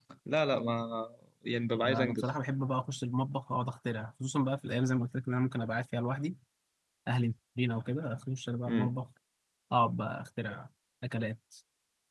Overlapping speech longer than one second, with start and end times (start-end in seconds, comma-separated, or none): none